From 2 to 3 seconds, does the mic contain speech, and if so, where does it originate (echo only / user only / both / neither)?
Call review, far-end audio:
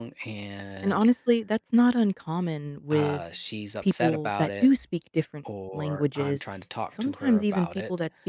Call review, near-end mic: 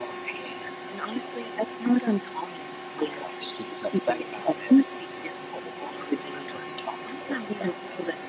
echo only